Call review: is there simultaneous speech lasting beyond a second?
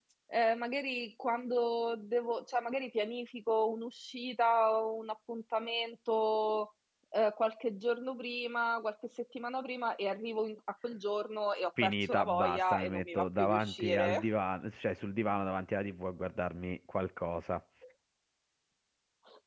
Yes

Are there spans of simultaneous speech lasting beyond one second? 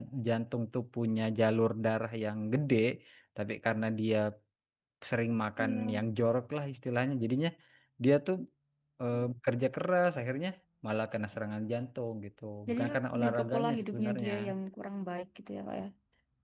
Yes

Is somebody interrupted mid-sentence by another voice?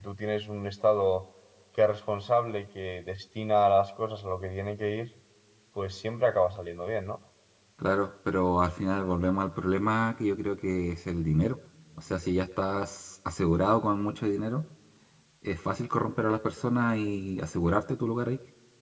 No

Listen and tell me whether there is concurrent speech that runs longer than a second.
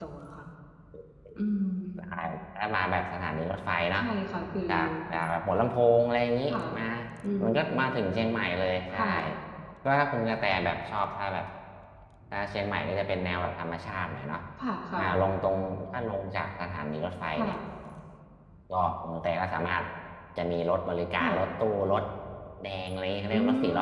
No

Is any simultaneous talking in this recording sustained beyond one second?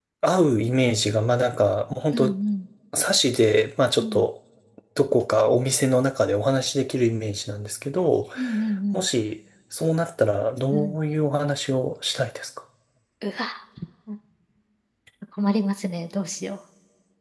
No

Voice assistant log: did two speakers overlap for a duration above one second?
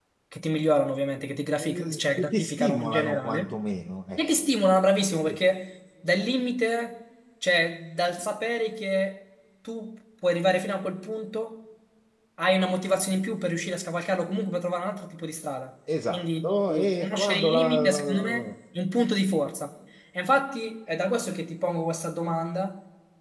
Yes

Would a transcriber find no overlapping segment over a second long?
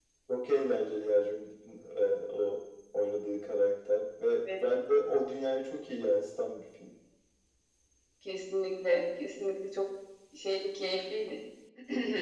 Yes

